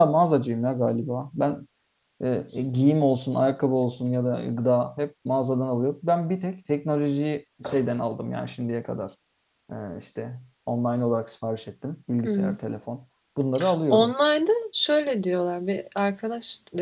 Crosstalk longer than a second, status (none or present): none